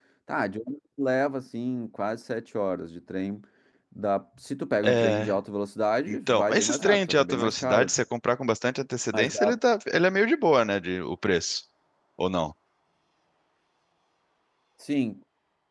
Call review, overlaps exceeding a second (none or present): present